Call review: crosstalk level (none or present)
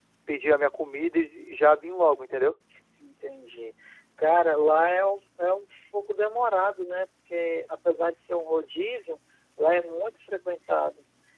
none